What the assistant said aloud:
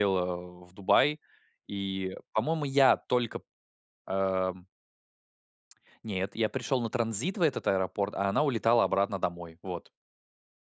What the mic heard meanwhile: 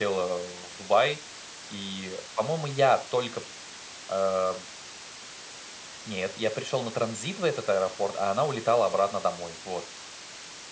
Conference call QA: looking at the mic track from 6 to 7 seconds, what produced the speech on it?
echo only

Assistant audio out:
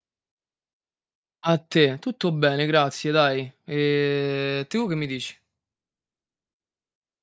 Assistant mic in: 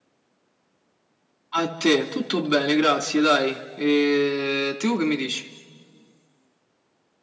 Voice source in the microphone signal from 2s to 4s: echo only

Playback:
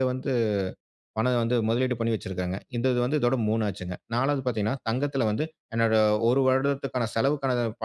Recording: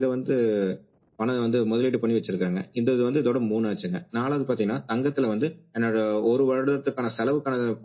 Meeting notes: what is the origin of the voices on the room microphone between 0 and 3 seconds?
echo only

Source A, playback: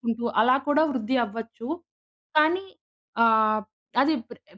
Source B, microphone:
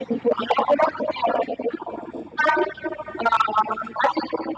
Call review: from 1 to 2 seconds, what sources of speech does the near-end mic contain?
echo only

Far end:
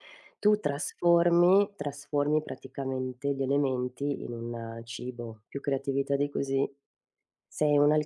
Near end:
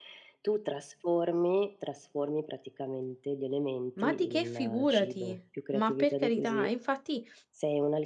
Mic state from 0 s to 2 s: echo only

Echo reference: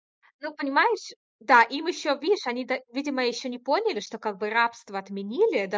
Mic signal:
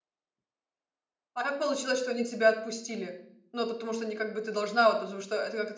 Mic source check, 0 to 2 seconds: user only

